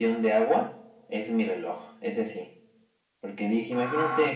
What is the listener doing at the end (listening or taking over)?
listening